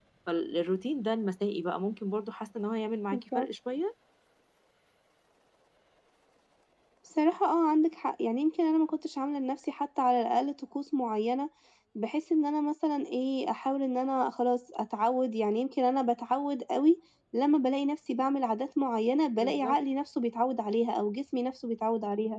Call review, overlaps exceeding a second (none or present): none